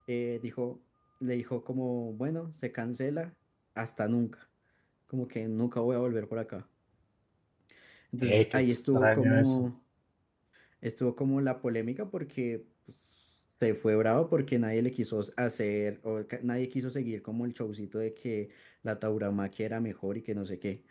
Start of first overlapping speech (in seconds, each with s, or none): 8.2 s